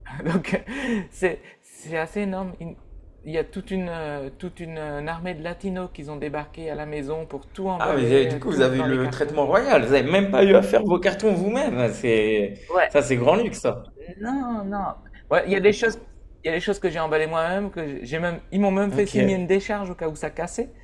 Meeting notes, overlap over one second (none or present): present